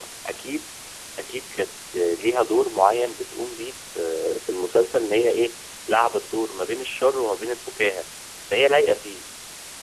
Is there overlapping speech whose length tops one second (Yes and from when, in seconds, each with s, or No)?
No